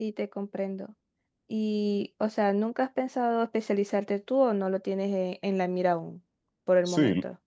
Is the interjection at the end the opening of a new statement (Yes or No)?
Yes